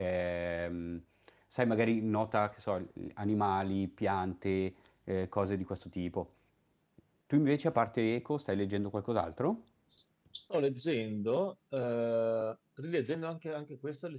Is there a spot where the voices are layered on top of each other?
No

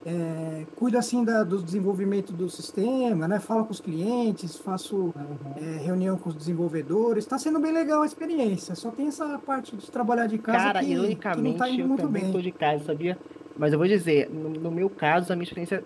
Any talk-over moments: Yes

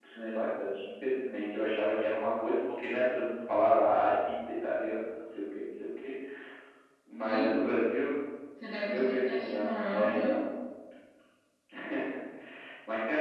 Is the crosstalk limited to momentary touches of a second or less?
No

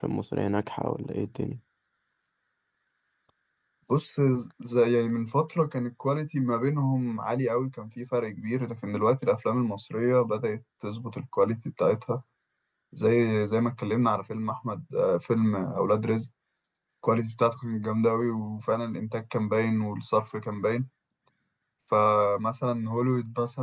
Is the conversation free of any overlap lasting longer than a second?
Yes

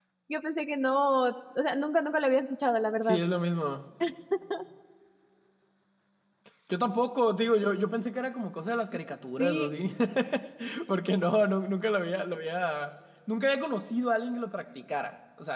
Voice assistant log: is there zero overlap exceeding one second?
Yes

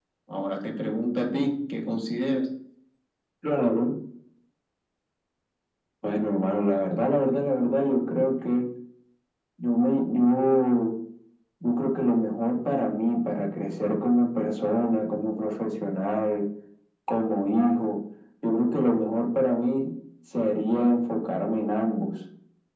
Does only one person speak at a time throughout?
Yes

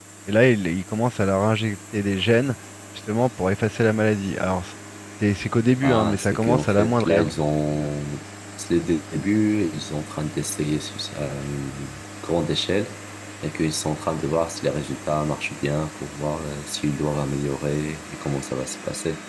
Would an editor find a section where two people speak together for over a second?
Yes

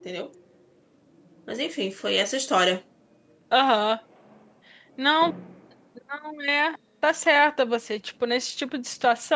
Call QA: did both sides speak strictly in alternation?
Yes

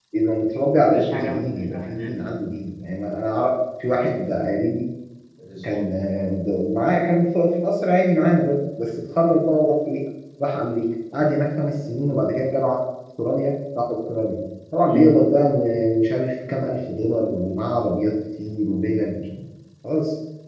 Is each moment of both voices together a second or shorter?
No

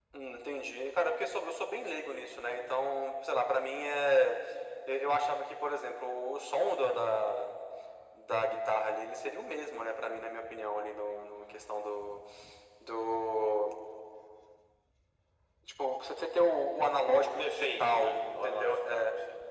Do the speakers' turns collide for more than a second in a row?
Yes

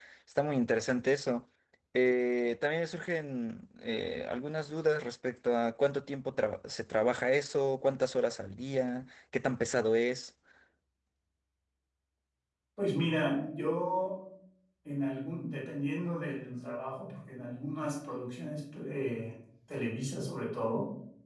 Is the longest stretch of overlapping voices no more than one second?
Yes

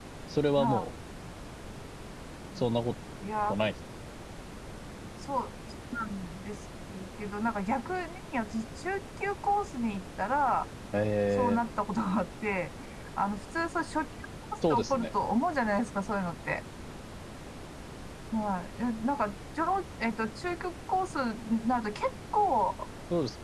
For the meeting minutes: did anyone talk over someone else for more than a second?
No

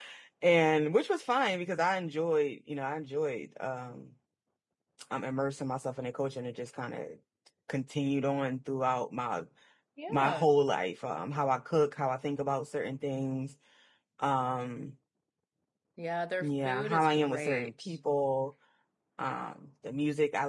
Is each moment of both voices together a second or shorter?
No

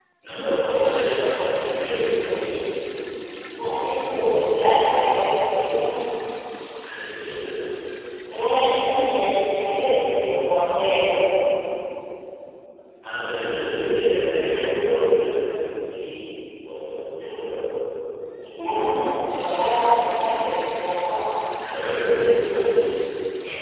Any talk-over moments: No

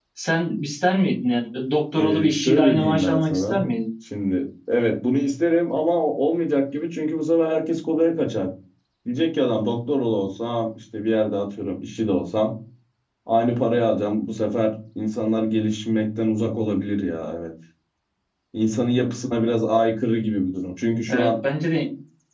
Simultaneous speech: Yes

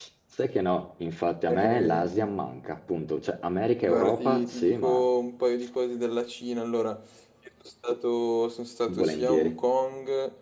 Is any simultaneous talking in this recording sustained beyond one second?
Yes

